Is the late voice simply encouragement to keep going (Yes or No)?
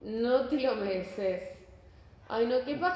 Yes